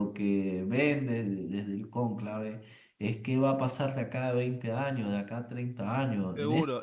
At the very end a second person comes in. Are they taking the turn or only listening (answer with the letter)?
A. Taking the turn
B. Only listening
A